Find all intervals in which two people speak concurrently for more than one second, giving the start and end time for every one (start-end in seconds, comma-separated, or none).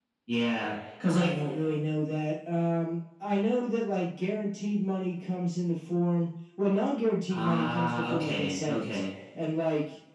7.3-9.0